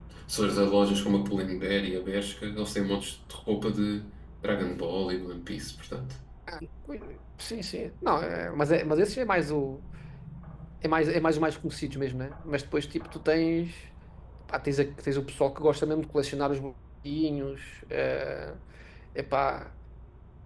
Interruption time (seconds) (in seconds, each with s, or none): none